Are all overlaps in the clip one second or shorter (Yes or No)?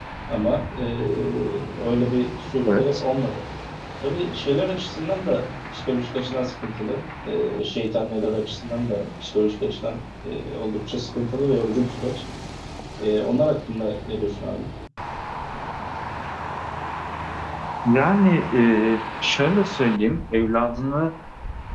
Yes